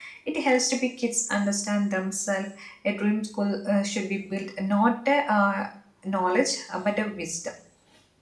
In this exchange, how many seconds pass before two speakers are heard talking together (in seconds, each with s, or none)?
none